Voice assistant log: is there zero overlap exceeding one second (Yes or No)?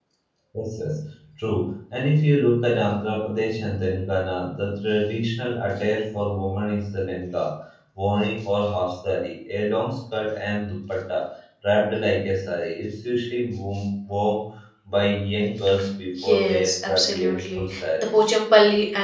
No